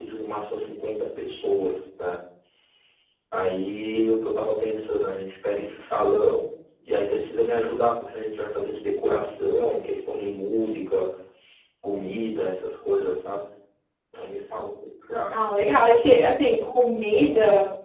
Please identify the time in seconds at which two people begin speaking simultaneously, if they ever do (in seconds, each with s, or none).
none